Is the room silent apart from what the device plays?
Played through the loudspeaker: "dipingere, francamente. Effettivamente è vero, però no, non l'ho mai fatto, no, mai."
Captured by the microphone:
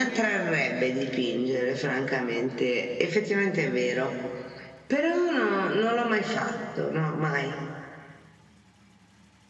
Yes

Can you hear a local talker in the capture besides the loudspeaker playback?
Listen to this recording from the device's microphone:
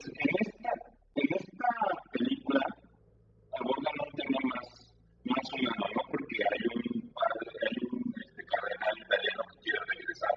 No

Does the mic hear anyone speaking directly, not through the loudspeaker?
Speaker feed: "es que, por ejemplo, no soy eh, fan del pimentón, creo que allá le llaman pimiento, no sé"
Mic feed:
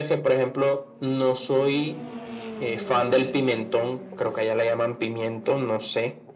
No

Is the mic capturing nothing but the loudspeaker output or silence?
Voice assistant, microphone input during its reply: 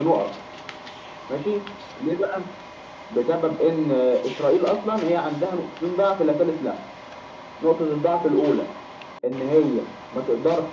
Yes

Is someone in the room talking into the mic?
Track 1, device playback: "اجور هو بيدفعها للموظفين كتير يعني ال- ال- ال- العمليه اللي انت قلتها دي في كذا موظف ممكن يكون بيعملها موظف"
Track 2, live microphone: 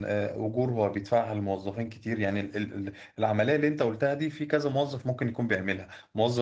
No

